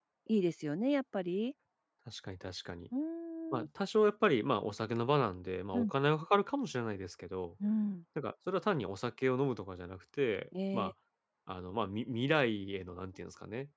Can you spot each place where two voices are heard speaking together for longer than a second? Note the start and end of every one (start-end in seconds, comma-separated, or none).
none